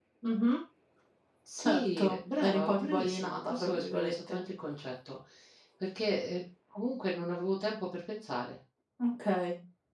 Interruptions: present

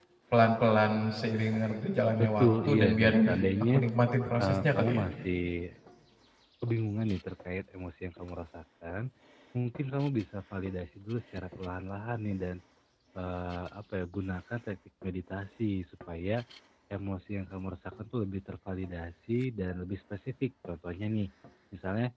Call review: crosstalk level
present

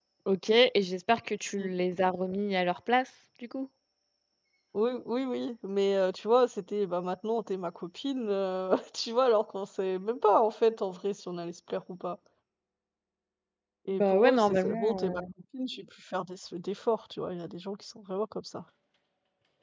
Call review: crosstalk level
present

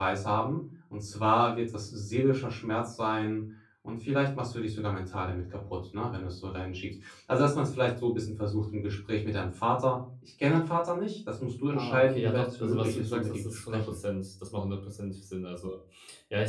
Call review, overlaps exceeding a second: present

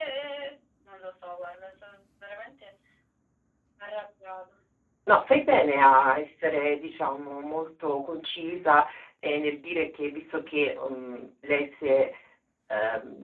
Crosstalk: none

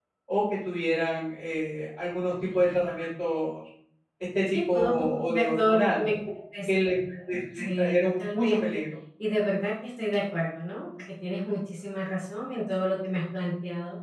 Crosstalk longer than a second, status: present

